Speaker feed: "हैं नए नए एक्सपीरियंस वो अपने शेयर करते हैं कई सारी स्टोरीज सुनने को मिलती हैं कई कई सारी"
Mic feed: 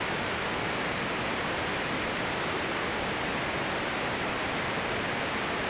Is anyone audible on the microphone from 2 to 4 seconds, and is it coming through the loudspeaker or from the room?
neither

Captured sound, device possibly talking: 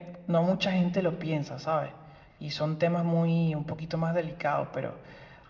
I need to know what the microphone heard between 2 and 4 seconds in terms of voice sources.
echo only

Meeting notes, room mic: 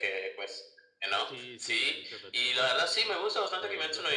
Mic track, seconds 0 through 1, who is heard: echo only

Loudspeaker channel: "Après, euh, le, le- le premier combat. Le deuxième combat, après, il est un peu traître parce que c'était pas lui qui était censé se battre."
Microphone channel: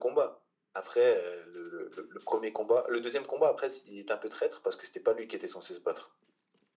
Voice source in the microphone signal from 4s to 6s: echo only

